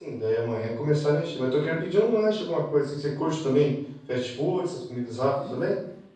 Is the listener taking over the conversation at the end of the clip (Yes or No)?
Yes